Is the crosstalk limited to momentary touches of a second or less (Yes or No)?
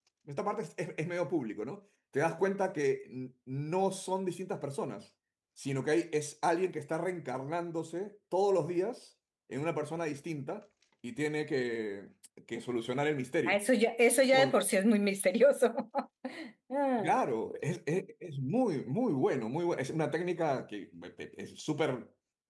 Yes